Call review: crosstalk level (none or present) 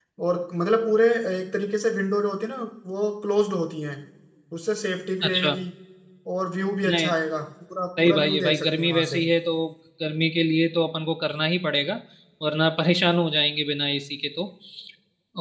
present